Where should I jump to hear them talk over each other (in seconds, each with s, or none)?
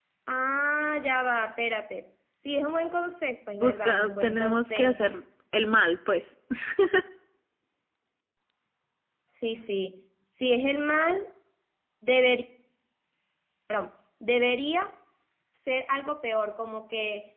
3.6 s